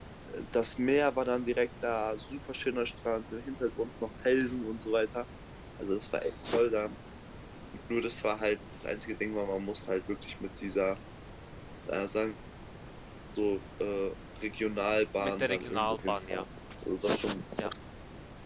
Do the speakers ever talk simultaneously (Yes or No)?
Yes